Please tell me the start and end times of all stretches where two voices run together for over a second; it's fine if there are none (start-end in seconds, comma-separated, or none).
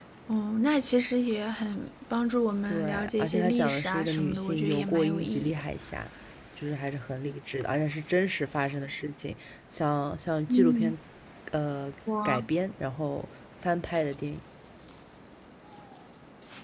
2.7-5.6